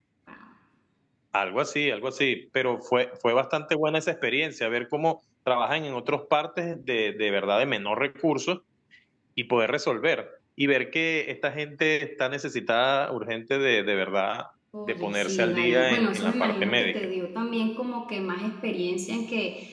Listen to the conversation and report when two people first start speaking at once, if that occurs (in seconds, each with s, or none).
14.9 s